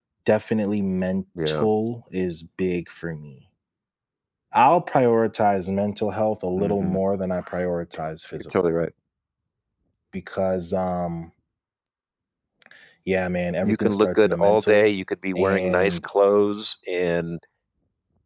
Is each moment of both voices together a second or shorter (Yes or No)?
No